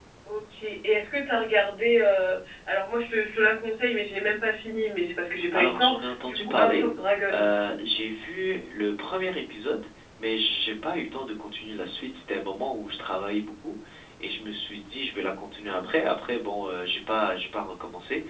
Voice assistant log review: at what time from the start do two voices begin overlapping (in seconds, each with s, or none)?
5.5 s